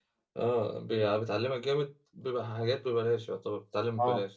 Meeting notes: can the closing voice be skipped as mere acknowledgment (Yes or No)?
No